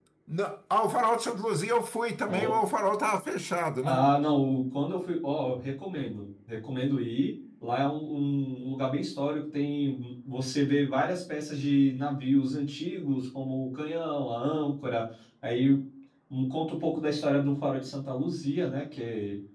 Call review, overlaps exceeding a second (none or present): none